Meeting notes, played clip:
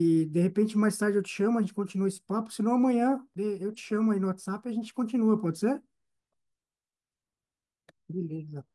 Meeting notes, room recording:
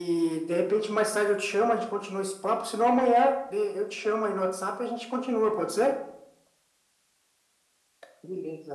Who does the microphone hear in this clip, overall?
echo only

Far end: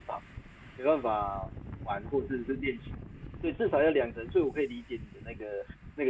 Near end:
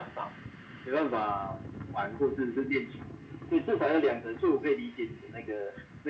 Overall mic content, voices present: echo only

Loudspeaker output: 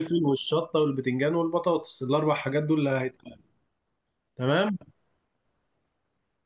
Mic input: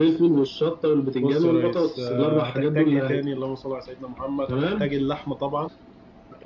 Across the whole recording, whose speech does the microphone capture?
both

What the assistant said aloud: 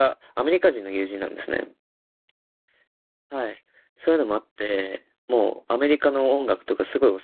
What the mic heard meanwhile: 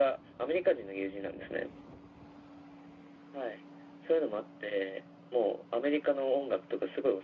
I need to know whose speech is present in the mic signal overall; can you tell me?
echo only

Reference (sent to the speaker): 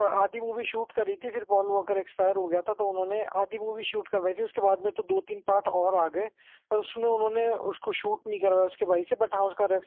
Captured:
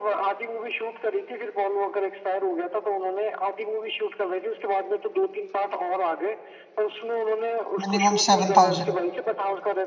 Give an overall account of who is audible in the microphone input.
both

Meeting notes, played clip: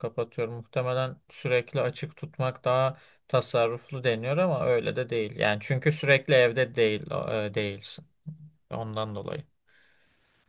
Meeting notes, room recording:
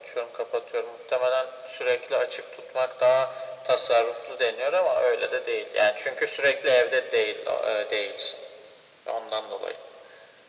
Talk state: echo only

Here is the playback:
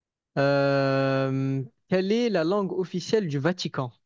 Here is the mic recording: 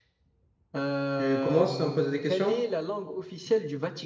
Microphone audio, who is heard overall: both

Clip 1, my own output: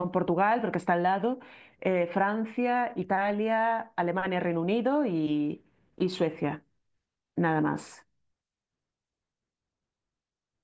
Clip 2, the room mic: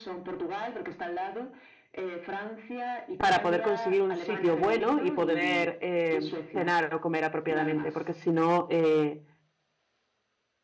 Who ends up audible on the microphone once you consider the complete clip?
both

